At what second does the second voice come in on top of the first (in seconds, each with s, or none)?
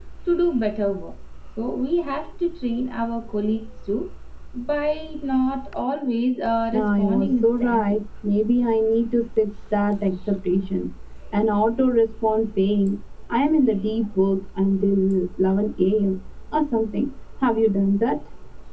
6.7 s